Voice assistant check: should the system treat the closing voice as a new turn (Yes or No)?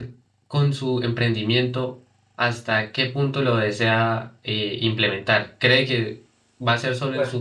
No